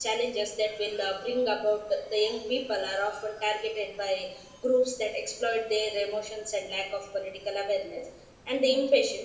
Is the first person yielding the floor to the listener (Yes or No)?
No